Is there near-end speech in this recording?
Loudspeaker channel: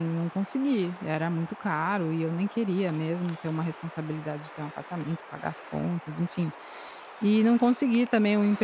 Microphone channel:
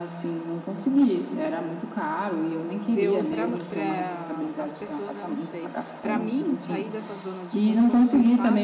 Yes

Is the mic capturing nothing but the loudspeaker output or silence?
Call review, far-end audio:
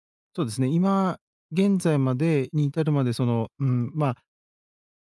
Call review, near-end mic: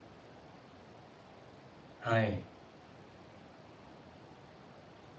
No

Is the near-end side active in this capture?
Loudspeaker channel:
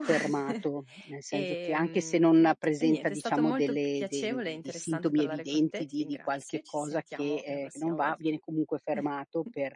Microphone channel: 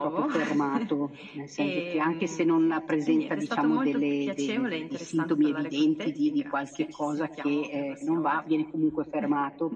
No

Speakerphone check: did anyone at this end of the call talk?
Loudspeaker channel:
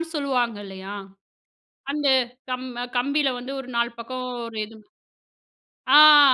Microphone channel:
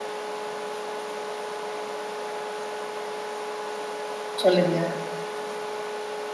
Yes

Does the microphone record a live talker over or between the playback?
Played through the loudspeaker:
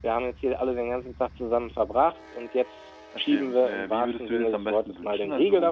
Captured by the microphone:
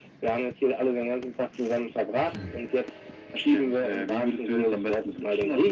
Yes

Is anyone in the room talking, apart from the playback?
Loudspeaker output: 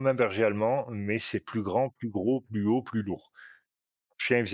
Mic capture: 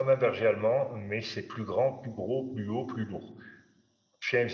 No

